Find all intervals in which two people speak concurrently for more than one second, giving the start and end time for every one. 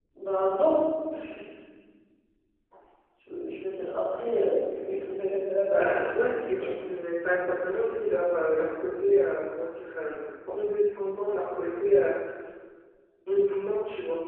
5.7-6.9

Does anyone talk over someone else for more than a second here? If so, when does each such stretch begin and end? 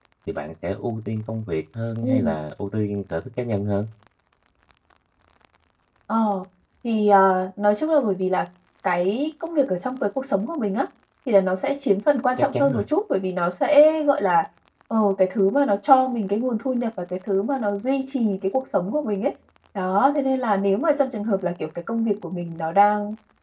none

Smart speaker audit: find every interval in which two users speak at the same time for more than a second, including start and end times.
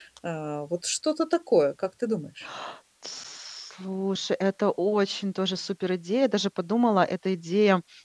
none

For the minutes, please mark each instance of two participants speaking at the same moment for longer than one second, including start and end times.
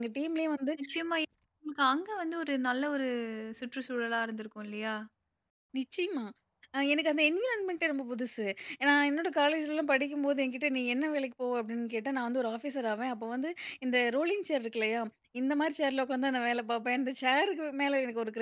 none

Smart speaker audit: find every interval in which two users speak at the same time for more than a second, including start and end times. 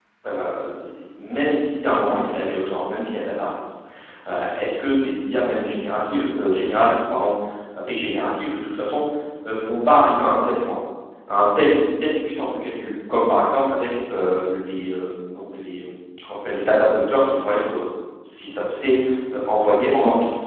none

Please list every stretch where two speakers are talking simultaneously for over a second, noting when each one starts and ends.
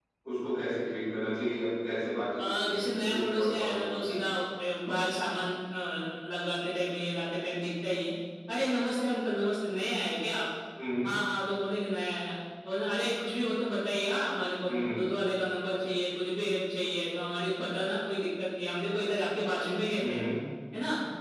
2.4-4.2

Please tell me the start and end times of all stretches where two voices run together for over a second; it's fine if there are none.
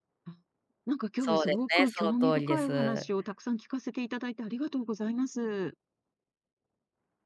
1.2-2.7

